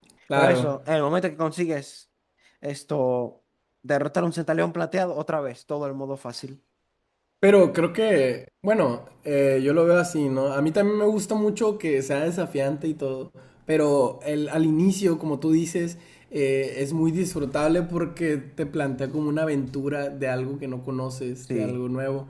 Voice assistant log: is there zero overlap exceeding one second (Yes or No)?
Yes